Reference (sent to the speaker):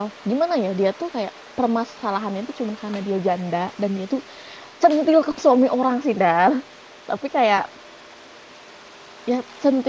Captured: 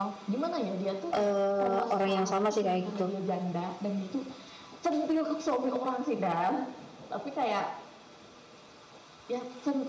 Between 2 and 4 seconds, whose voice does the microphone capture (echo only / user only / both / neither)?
both